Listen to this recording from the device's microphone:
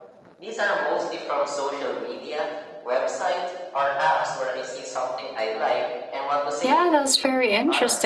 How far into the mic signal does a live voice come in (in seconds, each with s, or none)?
6.6 s